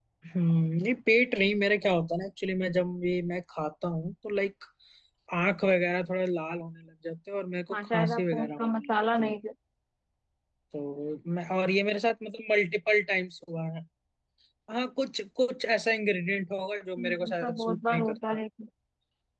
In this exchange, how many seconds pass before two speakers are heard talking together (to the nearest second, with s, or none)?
8 s